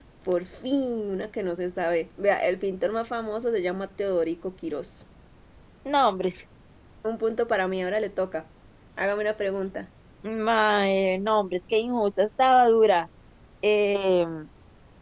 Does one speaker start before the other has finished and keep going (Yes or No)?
No